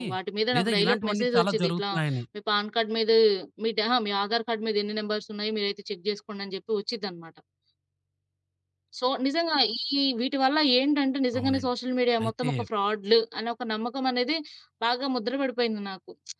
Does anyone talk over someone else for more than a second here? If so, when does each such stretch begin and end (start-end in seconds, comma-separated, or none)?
0.6-1.8